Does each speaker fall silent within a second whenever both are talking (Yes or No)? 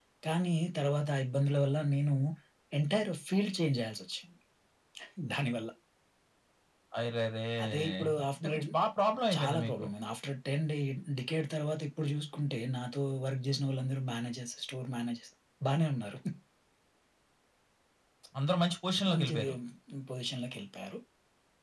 Yes